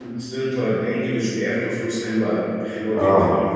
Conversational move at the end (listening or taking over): taking over